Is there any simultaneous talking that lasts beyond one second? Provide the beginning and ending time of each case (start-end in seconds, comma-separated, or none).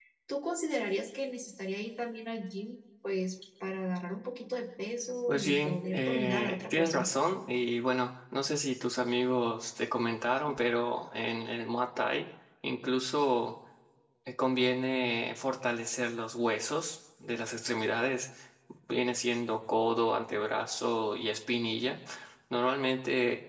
5.3-7.1